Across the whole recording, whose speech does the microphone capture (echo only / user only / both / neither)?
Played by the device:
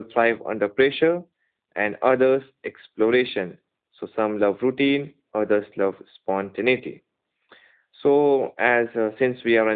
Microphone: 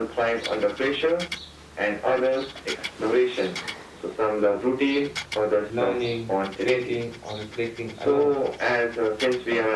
both